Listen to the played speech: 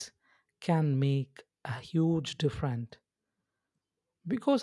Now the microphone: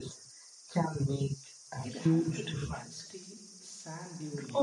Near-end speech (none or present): present